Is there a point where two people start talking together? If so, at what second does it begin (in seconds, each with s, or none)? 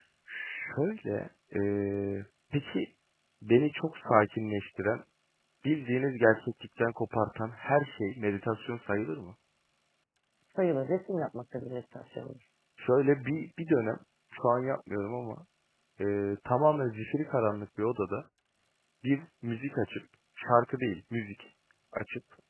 none